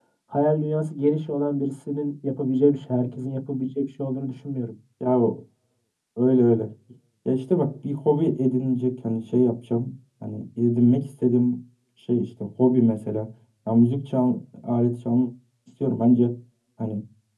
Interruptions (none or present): none